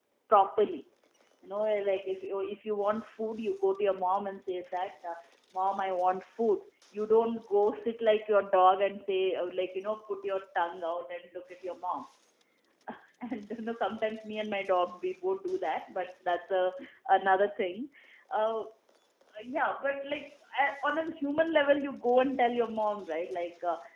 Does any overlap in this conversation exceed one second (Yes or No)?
No